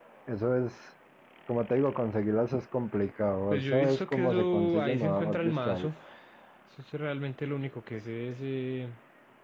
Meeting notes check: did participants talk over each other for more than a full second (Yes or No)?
Yes